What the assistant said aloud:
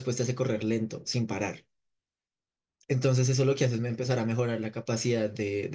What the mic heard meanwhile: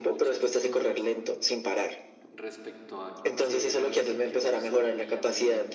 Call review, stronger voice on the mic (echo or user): echo